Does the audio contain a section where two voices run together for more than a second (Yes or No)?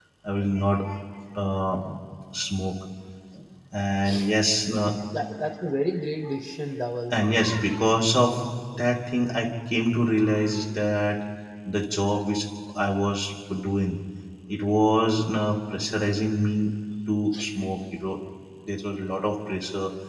No